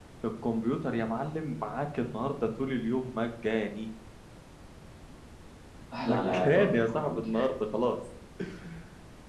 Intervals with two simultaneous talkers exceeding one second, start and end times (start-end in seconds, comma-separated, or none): 6.0-7.4